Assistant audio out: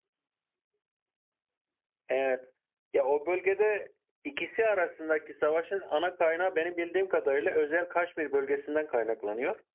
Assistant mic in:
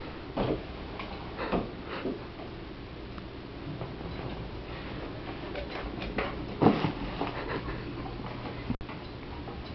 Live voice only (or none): none